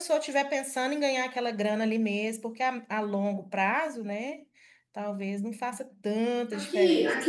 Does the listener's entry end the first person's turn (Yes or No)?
Yes